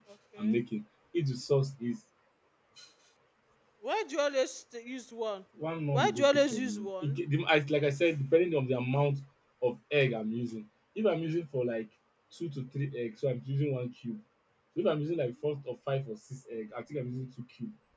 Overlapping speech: Yes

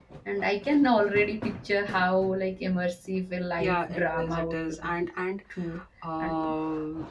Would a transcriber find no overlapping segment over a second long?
No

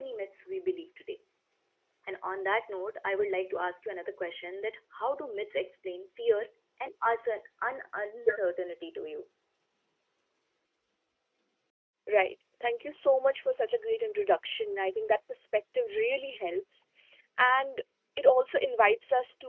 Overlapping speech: No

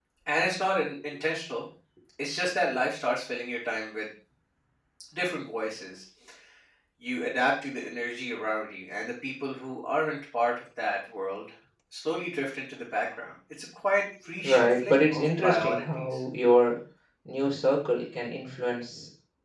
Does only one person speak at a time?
No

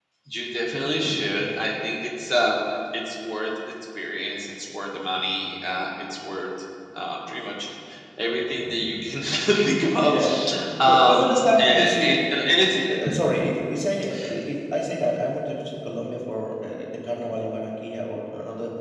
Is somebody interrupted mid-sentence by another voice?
Yes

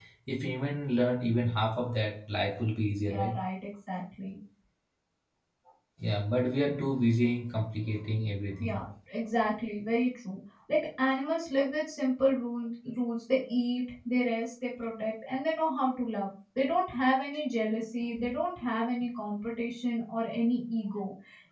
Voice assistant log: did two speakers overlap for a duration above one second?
No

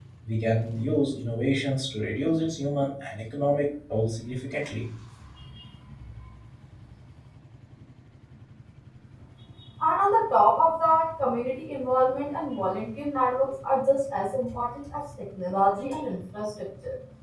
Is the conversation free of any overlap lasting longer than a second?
Yes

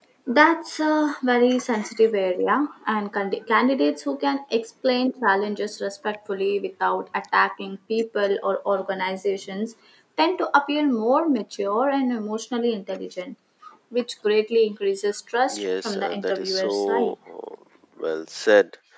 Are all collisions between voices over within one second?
No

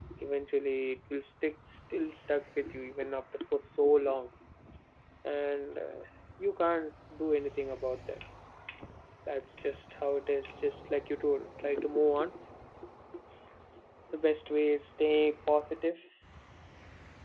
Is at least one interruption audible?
No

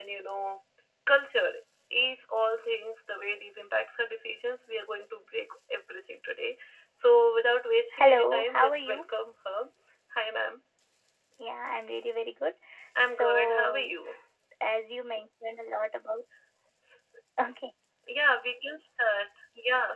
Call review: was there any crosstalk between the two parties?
Yes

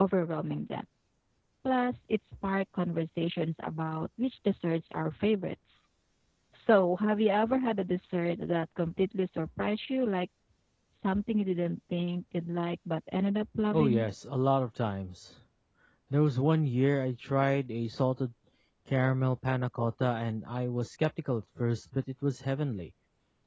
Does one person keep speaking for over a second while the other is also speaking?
No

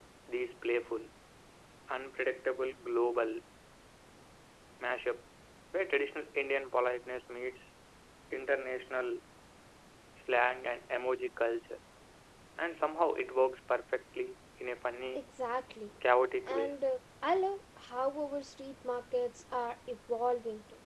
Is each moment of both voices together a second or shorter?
Yes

